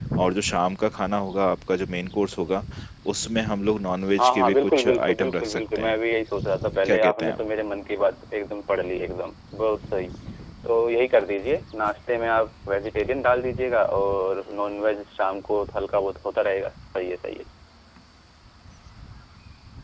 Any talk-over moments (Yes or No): Yes